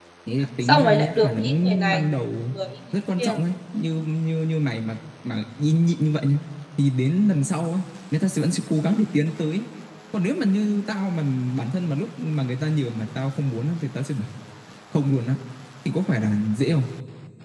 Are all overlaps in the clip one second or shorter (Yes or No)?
No